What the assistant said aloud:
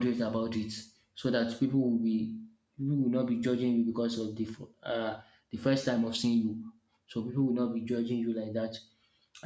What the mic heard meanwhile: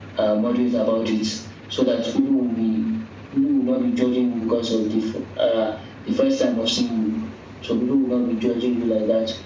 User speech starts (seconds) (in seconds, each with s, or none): none